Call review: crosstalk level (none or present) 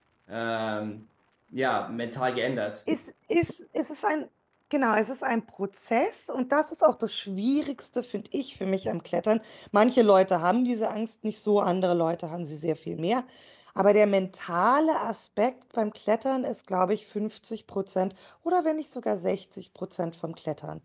none